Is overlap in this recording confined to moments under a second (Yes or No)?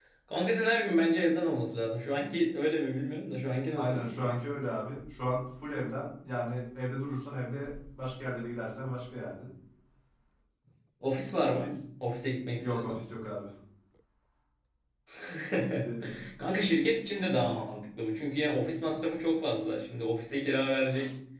Yes